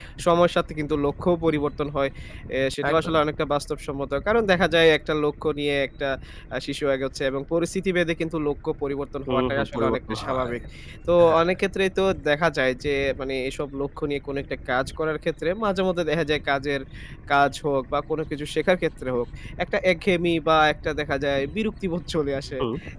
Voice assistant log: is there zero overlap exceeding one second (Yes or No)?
No